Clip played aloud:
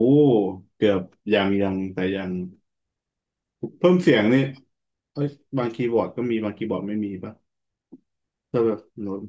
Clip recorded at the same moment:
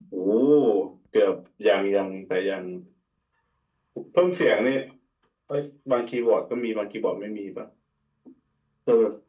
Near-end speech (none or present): none